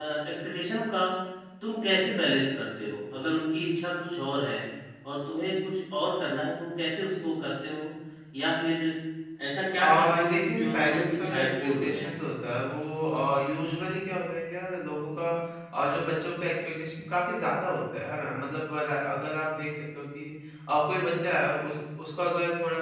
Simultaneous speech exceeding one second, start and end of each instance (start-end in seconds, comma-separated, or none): 9.8-12.1